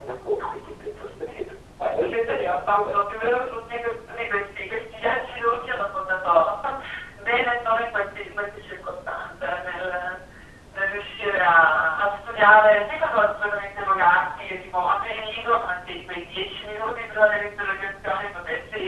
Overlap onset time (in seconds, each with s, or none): 1.8 s